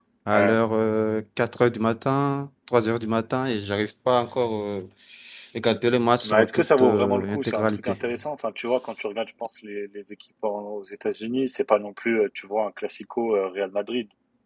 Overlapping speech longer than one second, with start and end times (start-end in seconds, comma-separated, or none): 6.2-8.0